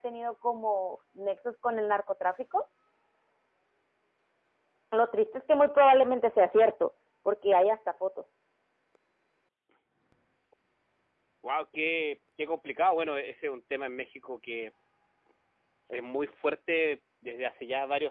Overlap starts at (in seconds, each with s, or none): none